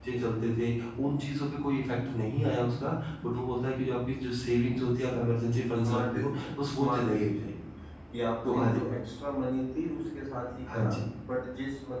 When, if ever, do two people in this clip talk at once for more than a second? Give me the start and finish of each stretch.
5.5-7.3

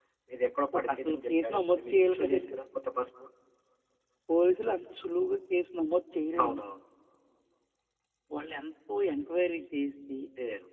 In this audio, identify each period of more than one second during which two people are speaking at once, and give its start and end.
0.7-2.6

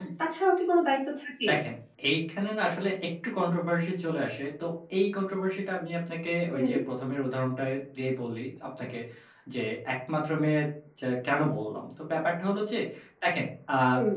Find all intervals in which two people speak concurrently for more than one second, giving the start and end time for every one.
none

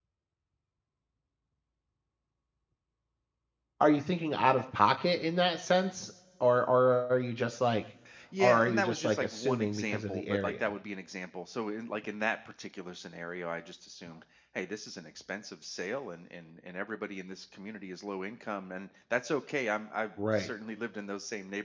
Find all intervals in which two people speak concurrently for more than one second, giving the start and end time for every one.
8.4-10.7

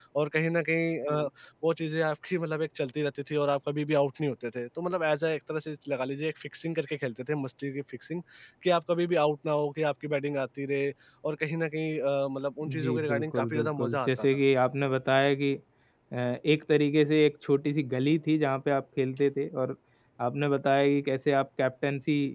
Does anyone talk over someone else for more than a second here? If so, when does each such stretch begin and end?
12.7-14.3

